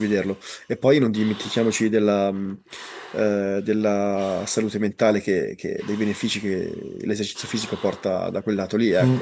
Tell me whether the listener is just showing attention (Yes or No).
No